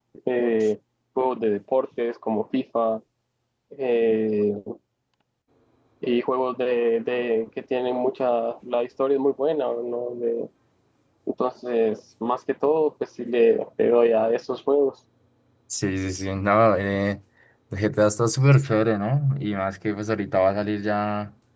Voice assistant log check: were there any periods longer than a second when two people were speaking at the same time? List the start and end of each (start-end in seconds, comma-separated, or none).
none